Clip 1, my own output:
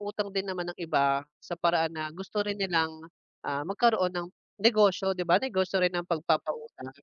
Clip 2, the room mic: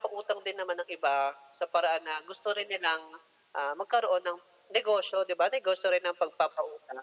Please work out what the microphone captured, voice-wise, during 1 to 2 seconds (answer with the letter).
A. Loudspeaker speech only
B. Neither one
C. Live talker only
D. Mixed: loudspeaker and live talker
A